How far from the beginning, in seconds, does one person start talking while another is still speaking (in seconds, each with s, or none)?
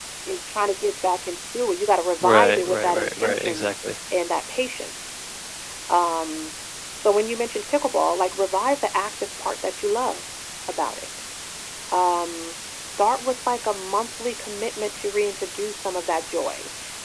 2.2 s